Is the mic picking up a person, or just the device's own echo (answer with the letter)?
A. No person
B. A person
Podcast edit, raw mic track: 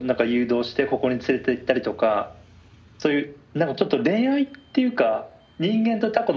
A